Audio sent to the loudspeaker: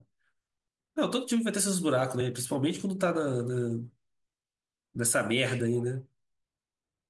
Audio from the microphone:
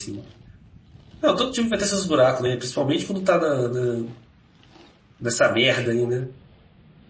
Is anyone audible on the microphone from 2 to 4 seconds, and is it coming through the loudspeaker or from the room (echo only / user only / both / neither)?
echo only